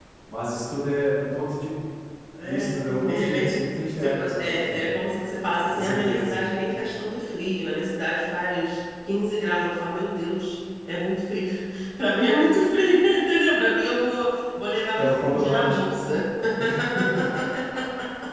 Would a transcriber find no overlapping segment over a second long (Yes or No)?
No